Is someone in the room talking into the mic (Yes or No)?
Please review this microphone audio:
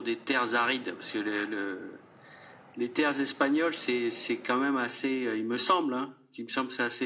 No